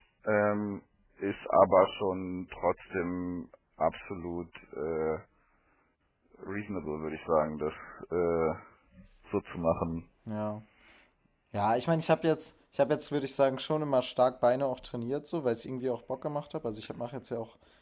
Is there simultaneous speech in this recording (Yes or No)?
No